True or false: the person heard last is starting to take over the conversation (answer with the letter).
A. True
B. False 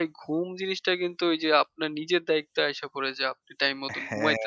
B